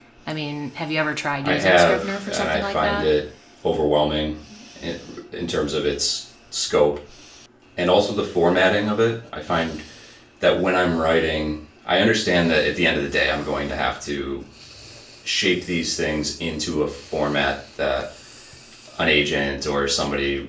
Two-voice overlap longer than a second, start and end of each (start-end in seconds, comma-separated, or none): 1.4-3.1